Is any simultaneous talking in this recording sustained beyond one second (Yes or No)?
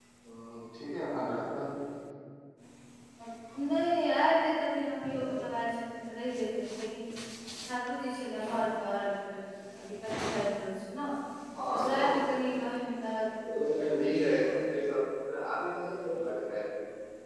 No